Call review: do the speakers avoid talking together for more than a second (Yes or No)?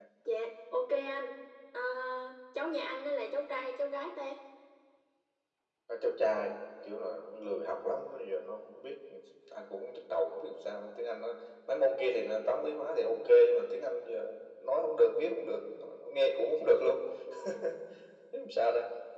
Yes